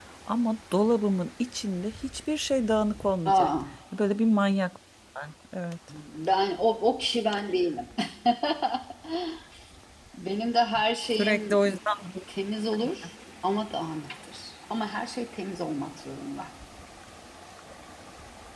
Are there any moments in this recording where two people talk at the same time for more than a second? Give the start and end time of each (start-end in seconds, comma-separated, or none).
none